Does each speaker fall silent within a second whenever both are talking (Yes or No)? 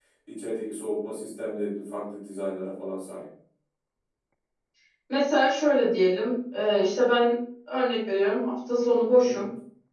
Yes